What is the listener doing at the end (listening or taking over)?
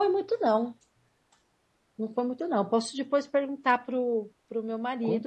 taking over